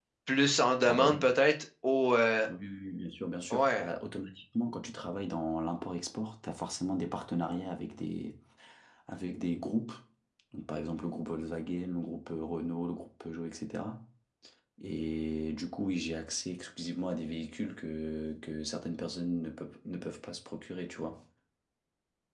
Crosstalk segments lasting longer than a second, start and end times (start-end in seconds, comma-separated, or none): none